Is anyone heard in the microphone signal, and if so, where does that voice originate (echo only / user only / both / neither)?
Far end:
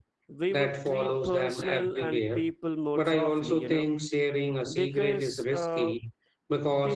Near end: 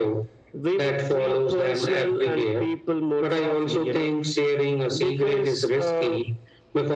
echo only